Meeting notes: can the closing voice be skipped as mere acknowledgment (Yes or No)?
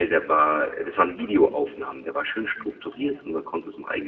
Yes